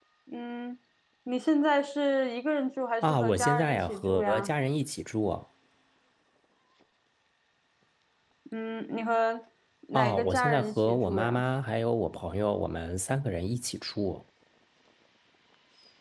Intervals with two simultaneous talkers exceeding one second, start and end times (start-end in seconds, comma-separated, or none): 3.0-4.5, 9.9-11.4